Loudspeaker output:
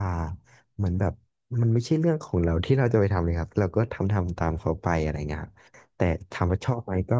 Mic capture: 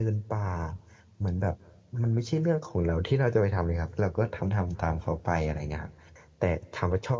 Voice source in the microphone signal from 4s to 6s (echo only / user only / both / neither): echo only